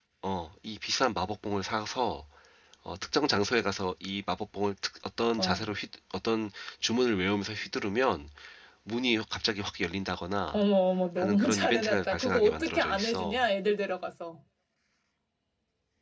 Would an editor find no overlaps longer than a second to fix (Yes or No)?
No